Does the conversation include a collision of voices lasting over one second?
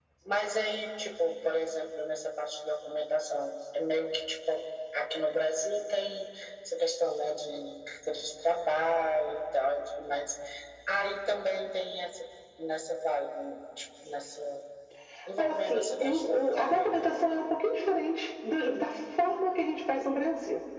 Yes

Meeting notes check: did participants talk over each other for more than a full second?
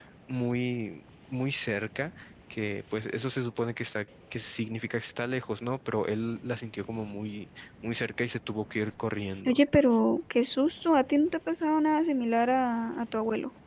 No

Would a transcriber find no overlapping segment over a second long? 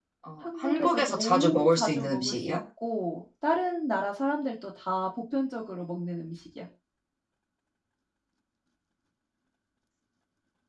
No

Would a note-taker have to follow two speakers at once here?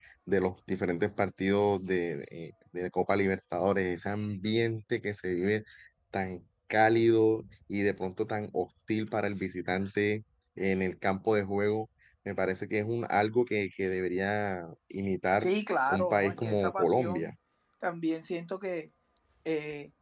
Yes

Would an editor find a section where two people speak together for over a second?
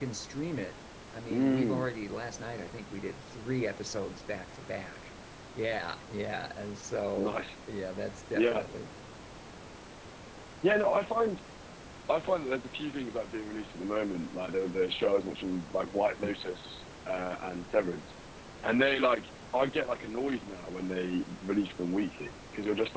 No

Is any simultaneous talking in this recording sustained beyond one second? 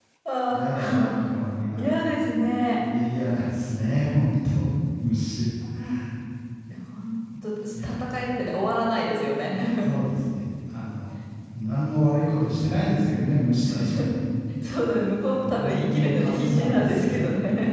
Yes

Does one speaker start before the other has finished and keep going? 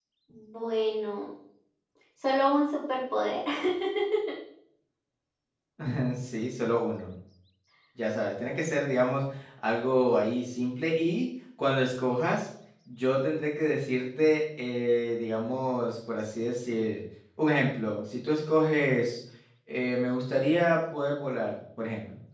No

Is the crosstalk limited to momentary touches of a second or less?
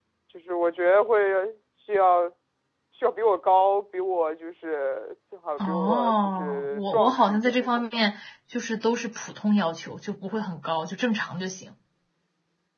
No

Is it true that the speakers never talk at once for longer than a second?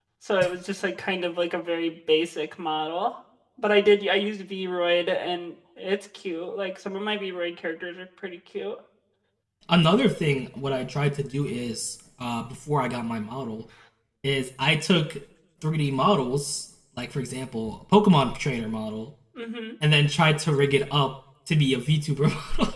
Yes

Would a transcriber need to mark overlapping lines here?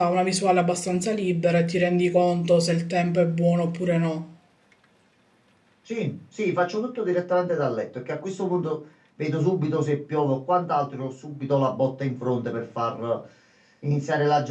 No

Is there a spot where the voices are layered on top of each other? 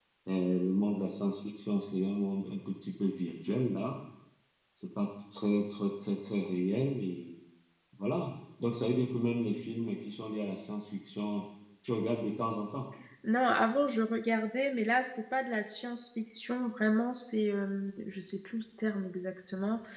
No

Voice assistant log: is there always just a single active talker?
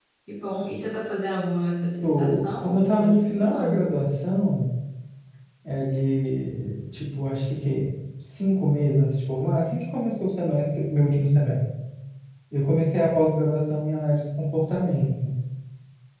No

